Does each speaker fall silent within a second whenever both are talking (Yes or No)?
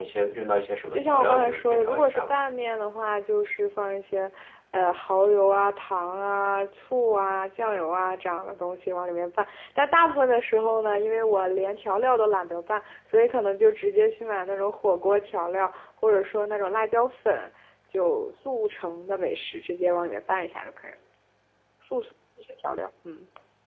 No